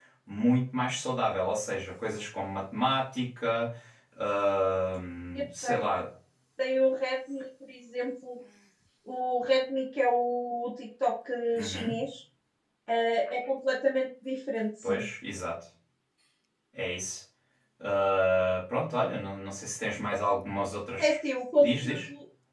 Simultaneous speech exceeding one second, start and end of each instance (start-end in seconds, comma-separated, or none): none